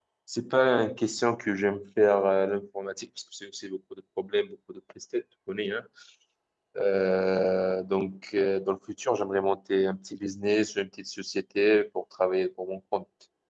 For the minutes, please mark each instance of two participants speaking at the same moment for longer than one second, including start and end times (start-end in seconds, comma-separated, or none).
none